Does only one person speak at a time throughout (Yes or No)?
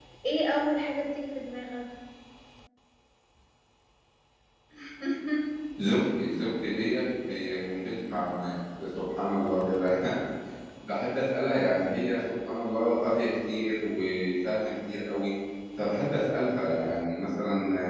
Yes